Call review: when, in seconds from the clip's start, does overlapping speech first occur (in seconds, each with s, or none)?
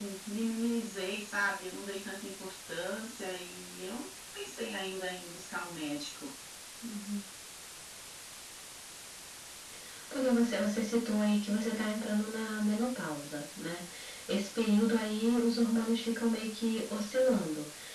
none